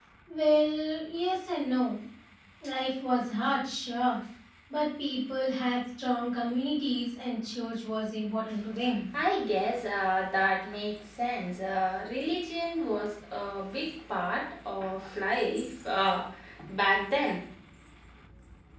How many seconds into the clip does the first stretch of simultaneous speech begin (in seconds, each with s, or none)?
none